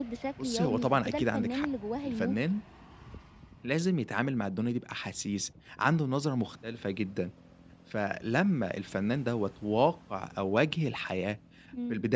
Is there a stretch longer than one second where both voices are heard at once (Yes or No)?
Yes